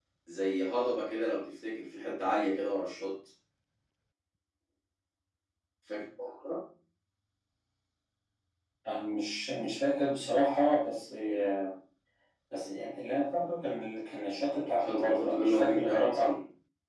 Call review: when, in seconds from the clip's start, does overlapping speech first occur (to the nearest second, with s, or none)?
15 s